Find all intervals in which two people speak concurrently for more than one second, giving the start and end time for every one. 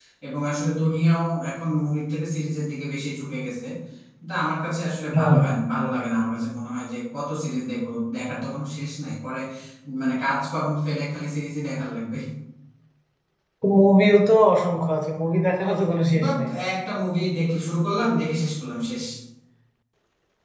none

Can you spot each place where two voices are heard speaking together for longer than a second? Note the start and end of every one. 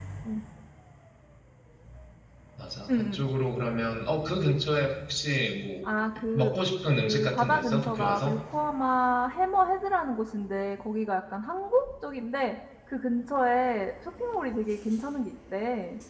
7.0-8.4

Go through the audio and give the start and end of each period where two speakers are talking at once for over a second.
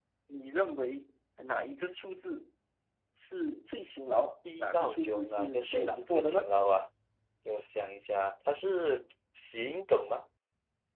4.5-6.5

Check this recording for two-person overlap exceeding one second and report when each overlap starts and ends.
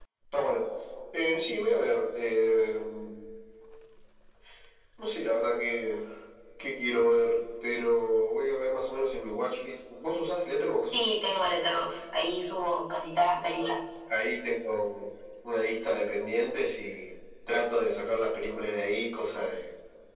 none

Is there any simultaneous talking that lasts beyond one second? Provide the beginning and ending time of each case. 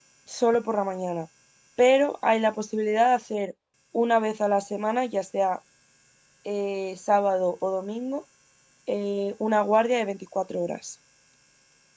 none

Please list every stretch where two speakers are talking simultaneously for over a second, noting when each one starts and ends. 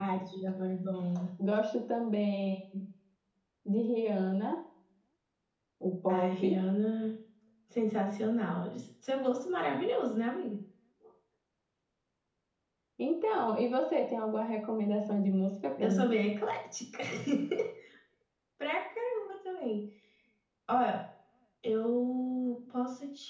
none

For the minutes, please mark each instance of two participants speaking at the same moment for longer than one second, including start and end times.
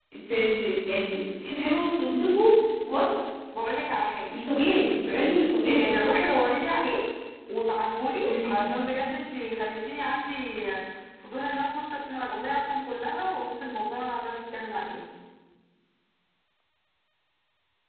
none

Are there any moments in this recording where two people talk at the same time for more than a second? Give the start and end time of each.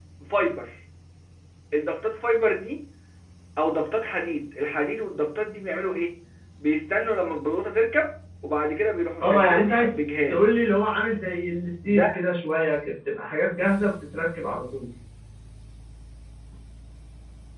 9.2-10.4

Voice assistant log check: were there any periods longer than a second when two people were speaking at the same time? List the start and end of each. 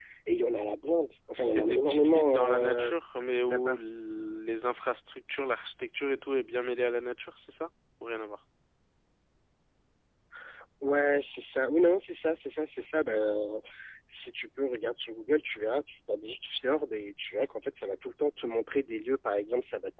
1.4-2.9

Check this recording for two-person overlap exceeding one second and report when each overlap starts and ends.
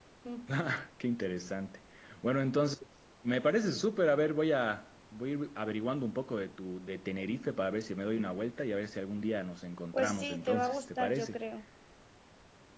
9.9-11.4

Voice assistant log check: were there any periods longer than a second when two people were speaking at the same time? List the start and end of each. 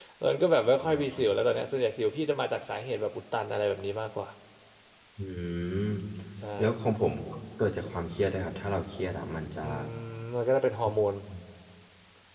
none

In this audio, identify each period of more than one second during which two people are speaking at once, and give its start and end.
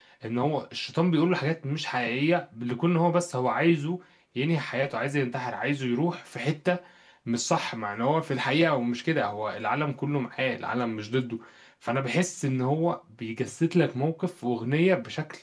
none

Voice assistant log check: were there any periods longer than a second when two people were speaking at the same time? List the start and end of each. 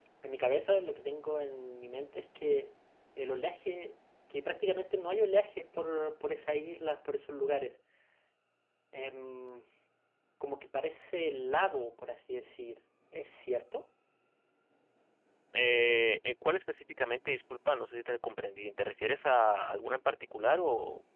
none

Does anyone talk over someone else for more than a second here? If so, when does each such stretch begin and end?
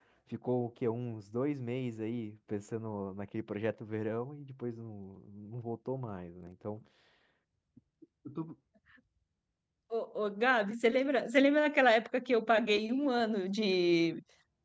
none

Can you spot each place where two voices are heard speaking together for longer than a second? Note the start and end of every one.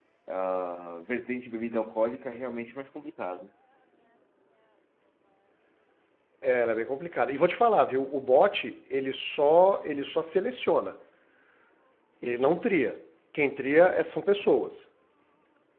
none

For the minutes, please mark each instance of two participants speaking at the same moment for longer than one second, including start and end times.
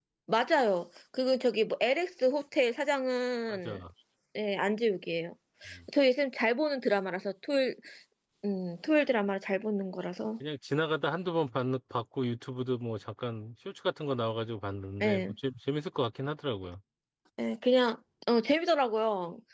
none

